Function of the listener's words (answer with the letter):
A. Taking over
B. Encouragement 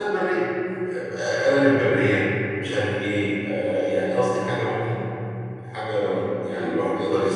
B